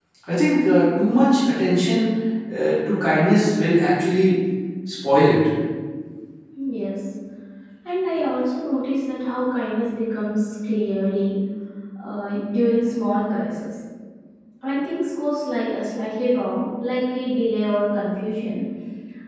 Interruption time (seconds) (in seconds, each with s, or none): none